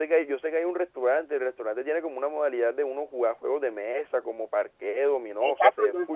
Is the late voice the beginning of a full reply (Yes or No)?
Yes